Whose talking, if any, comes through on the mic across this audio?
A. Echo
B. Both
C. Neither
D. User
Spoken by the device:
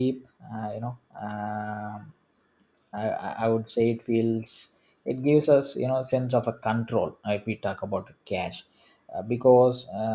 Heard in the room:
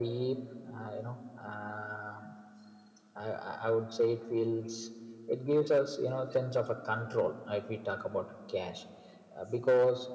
A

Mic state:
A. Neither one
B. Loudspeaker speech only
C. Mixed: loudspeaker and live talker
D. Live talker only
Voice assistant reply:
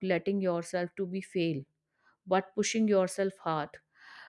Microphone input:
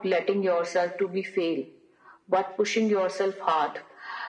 B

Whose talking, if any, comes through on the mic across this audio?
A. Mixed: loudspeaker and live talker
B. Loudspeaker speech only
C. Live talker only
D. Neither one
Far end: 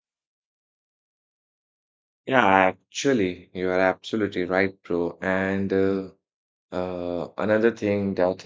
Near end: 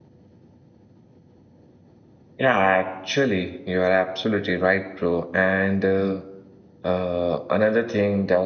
B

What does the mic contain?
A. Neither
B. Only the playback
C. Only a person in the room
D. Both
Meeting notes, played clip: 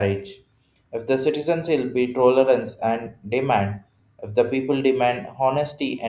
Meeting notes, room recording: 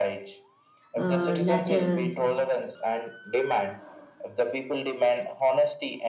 D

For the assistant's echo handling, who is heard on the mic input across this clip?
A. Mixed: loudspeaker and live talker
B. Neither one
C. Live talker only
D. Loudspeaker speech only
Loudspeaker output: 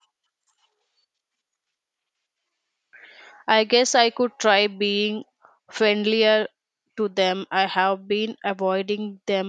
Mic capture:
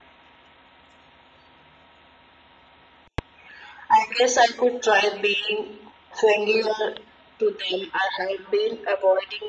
D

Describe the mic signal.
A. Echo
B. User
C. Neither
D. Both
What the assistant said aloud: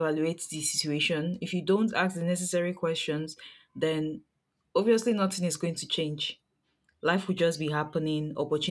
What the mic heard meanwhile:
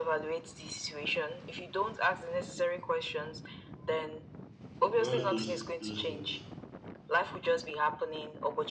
D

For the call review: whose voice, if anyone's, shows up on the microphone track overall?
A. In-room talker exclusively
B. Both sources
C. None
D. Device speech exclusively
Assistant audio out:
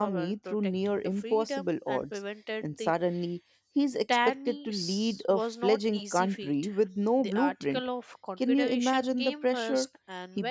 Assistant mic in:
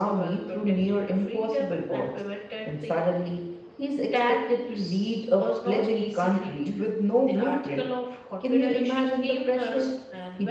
D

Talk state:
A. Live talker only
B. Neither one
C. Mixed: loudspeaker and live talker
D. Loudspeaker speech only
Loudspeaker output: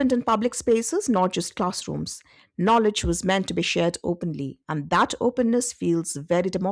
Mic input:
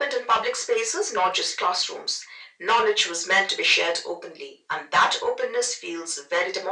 D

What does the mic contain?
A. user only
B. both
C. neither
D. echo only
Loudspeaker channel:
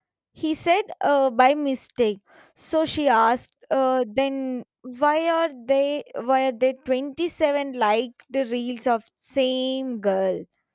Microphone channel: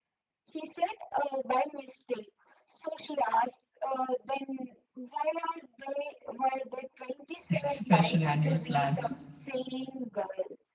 B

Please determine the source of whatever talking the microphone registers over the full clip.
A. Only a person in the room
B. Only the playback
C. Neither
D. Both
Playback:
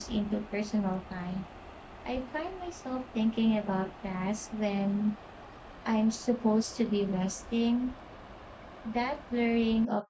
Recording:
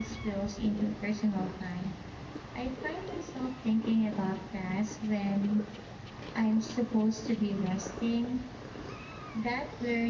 B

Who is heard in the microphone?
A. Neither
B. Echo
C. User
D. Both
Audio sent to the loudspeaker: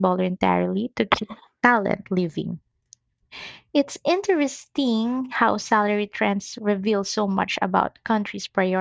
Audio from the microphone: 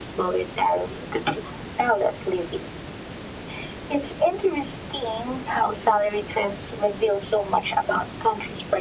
B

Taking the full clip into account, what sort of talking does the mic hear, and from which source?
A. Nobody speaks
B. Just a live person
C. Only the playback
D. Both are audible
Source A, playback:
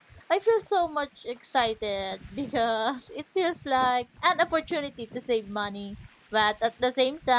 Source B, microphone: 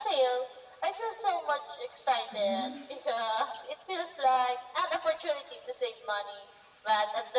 D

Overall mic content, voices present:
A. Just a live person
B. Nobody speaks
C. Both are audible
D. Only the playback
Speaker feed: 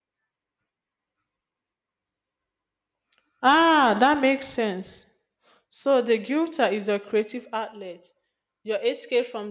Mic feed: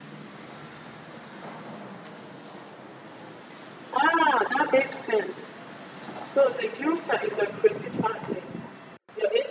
D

